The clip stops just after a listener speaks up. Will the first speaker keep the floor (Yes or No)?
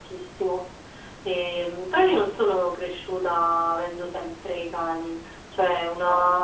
Yes